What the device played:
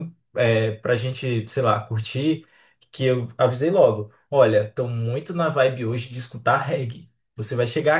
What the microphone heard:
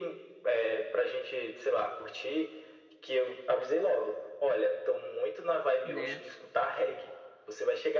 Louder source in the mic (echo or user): echo